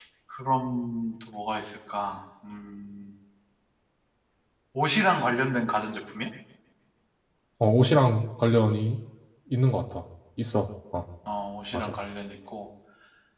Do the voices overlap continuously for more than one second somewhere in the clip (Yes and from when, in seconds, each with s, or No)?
No